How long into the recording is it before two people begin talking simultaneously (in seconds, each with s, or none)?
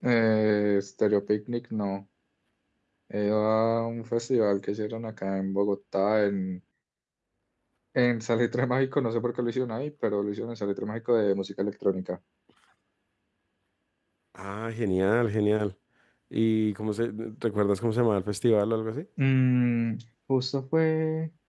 none